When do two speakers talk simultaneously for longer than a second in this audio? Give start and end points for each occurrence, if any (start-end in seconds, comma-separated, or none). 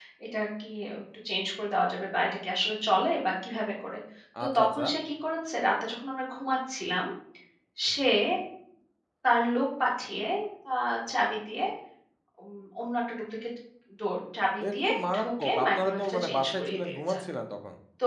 14.6-17.2